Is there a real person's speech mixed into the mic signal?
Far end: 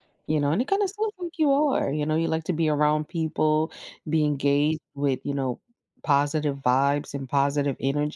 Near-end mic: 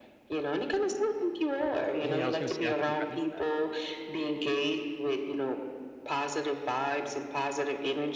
Yes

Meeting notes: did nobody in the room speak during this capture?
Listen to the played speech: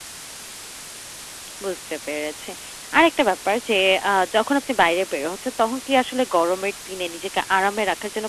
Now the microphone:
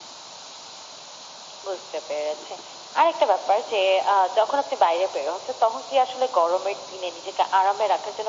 Yes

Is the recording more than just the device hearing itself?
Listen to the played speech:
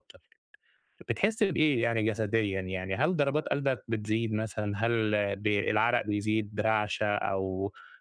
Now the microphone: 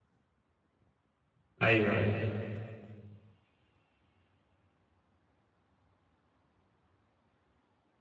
Yes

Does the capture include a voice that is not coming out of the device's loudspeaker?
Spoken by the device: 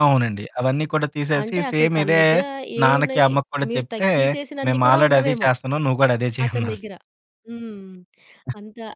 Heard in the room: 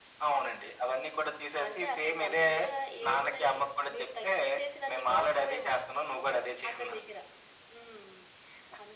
No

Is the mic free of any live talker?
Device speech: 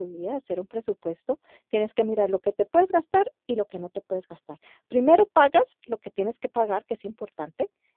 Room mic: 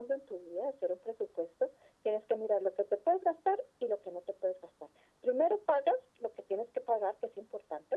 Yes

